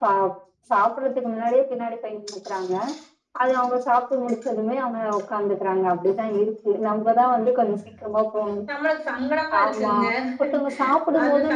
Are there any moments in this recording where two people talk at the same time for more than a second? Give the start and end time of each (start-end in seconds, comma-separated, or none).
none